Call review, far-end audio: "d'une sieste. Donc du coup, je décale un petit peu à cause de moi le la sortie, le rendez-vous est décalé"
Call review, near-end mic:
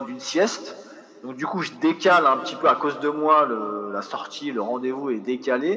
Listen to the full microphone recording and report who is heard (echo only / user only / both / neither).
echo only